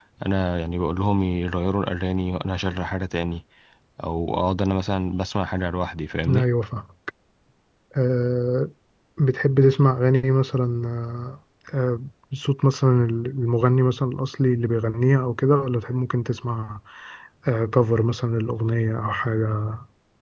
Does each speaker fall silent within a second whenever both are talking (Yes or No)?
Yes